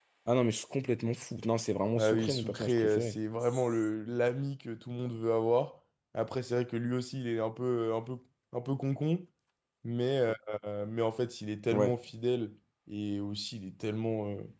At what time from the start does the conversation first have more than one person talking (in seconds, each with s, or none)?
1.9 s